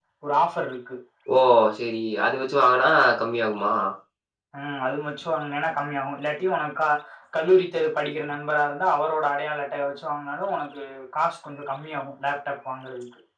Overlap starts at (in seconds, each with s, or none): none